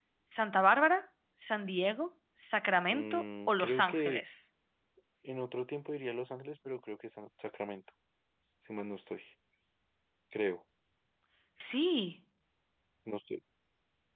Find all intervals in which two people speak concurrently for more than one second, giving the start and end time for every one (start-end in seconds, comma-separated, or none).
2.9-4.2